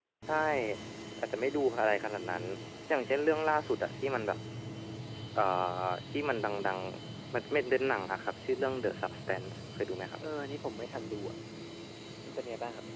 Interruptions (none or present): none